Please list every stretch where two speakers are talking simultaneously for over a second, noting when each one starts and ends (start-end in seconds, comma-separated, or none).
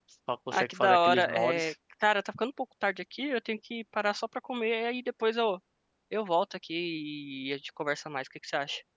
0.5-1.7